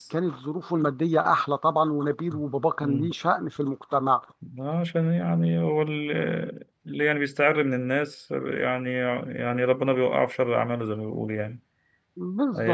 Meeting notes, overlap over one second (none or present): none